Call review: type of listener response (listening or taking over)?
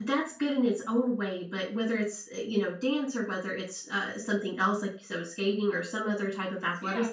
listening